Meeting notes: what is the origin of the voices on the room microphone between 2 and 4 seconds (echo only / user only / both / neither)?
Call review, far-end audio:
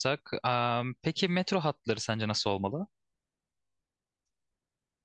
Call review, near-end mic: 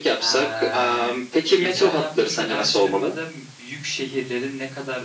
both